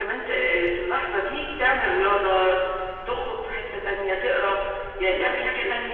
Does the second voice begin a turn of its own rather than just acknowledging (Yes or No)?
No